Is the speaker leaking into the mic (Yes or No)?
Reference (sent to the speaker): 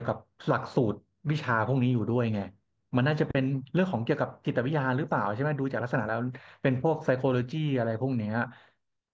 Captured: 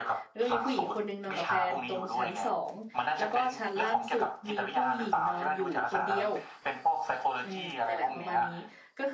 Yes